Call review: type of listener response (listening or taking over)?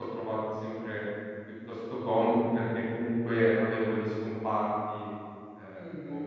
taking over